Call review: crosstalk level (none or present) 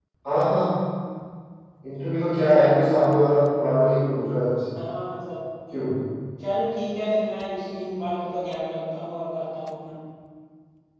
none